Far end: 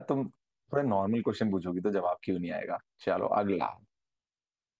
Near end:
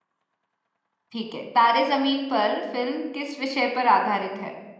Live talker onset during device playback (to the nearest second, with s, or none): 1 s